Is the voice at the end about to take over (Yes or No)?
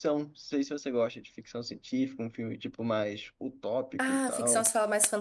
Yes